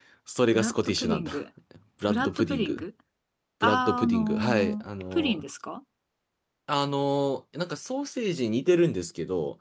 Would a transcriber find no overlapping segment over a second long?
No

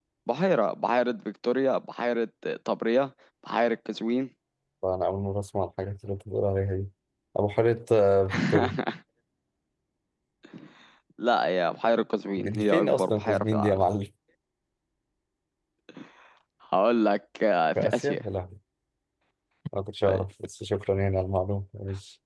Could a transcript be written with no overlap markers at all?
No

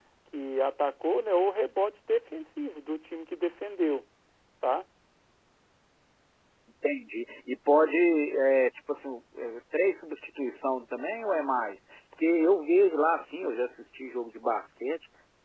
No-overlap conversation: Yes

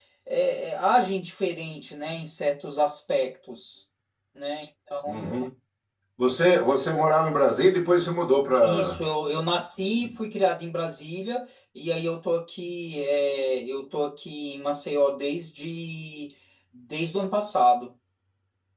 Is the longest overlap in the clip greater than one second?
No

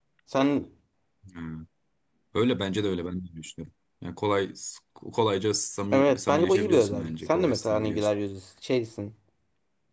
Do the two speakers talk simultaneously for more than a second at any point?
Yes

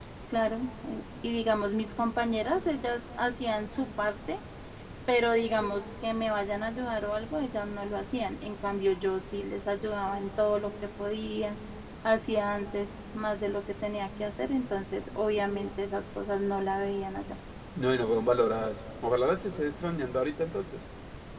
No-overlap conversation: Yes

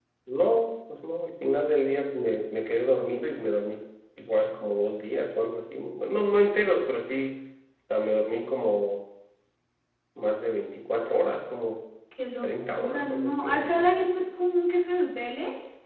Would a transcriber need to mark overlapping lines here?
Yes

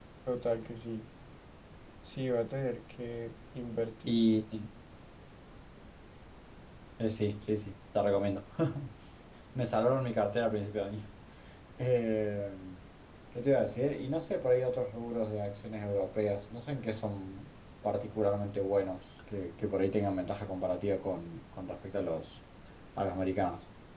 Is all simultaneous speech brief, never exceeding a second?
Yes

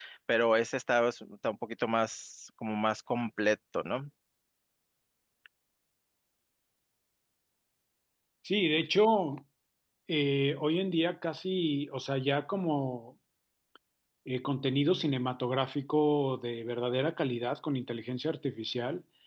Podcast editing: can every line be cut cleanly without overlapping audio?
Yes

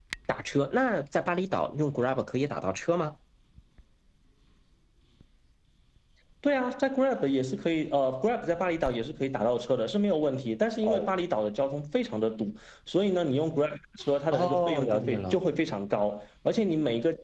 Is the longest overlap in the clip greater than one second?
Yes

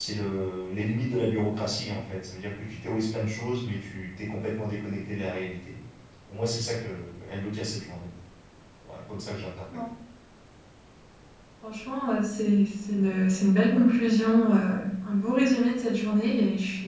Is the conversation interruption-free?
Yes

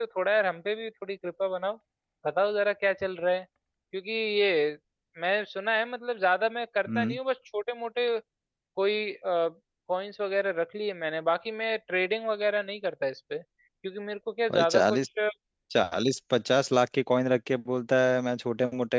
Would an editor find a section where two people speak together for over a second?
No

